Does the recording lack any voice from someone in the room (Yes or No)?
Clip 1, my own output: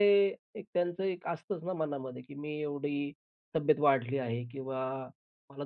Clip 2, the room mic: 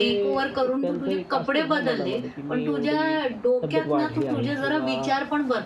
No